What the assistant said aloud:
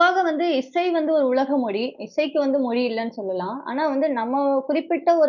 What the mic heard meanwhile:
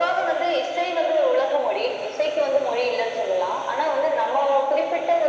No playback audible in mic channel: No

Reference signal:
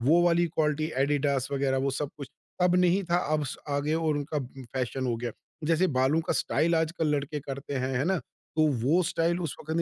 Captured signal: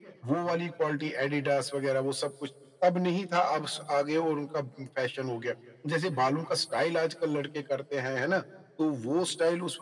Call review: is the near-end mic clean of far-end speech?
No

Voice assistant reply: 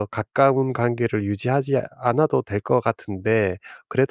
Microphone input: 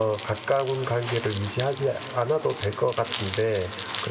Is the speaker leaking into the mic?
Yes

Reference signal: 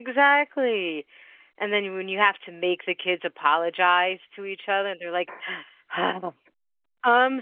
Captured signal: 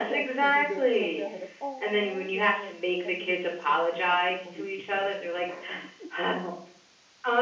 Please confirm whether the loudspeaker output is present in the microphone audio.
Yes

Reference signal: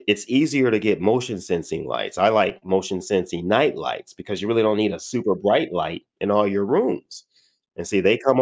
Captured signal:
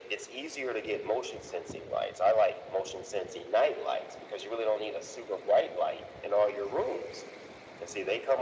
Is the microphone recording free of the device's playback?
No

